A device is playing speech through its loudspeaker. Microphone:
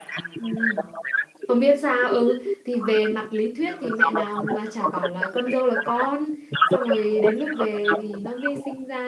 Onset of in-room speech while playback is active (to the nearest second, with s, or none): 0 s